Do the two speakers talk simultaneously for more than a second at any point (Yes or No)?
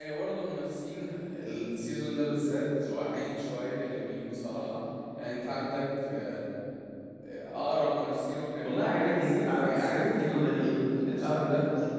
Yes